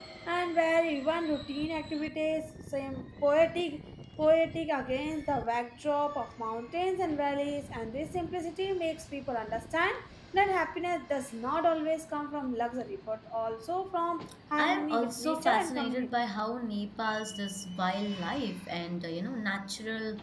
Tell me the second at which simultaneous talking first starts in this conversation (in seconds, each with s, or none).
14.6 s